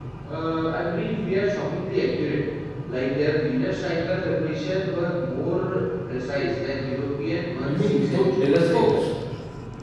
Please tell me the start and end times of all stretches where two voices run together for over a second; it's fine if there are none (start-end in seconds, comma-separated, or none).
7.6-9.0